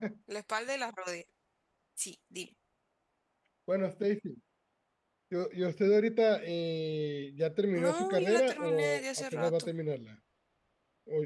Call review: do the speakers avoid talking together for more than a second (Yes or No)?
No